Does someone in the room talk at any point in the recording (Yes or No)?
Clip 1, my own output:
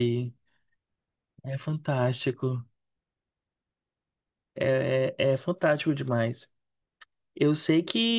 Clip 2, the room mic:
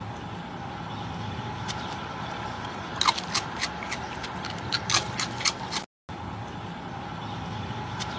No